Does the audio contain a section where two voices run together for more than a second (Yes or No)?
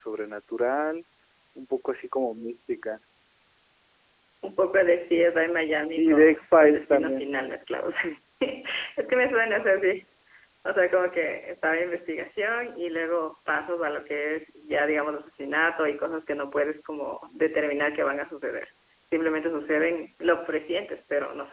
Yes